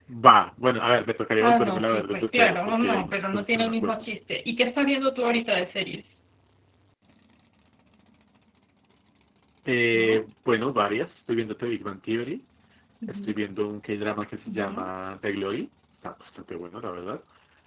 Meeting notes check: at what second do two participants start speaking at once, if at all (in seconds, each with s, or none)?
1.4 s